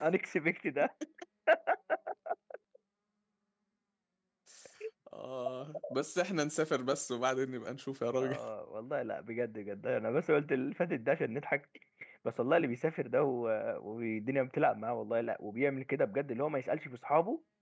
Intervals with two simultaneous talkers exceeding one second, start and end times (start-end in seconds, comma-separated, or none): none